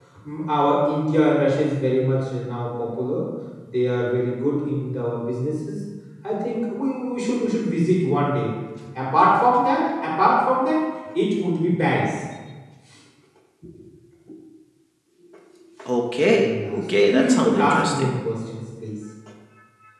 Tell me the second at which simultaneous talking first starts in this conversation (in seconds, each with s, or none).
16.3 s